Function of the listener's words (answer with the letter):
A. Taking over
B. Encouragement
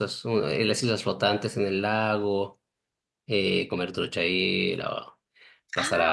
A